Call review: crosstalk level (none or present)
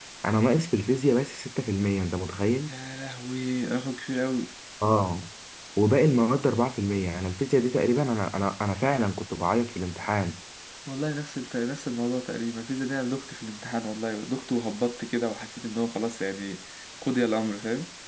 none